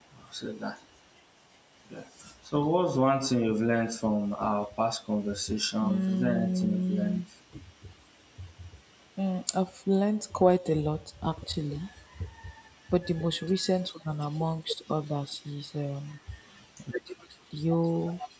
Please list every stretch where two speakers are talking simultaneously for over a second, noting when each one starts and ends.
5.8-7.2

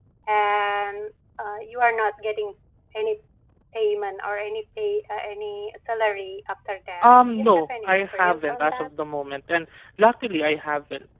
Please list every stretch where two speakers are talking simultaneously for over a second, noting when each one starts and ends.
7.0-8.9

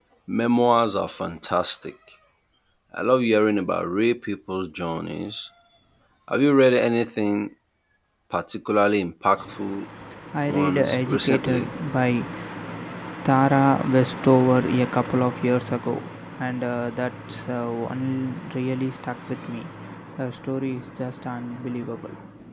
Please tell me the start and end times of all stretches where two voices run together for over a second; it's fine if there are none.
10.5-11.7

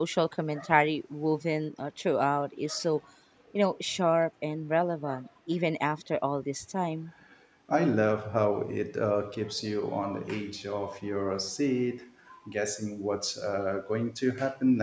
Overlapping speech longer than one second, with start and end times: none

